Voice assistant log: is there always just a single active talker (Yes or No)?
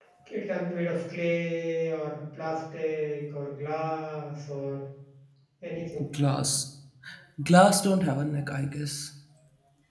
Yes